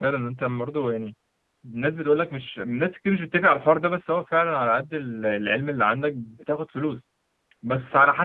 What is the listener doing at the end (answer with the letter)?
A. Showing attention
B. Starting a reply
A